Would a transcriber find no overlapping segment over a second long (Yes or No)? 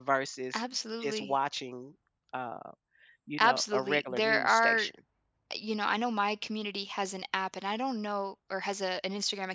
No